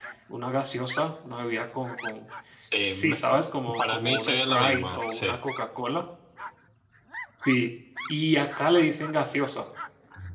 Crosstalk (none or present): present